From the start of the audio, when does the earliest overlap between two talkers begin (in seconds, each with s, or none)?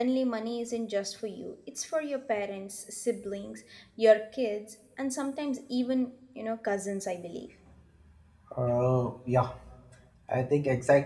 none